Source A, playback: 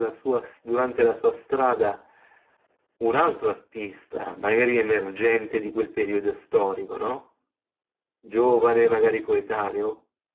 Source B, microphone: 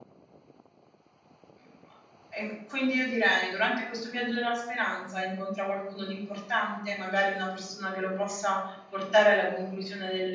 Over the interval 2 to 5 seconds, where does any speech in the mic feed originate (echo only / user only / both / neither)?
user only